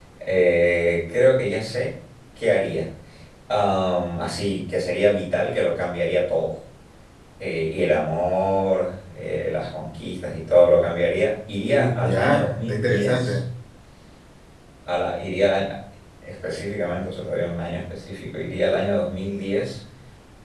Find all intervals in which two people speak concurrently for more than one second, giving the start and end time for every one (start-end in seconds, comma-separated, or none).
11.6-13.4